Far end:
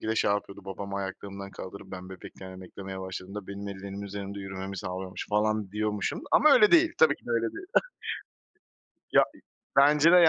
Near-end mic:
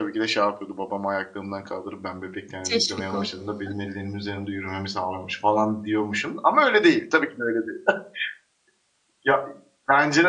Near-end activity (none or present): present